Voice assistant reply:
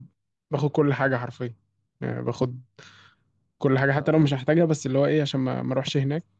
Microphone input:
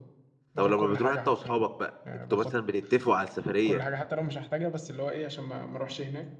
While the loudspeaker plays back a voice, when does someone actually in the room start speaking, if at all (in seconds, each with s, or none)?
0.6 s